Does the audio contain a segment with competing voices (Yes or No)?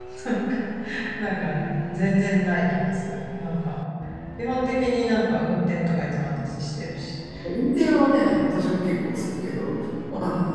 No